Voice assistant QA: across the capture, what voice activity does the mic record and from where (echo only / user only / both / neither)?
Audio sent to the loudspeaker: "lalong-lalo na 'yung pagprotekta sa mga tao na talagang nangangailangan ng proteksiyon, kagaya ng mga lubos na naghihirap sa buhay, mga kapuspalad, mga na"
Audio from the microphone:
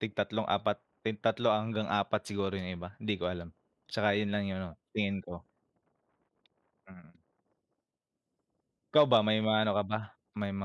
user only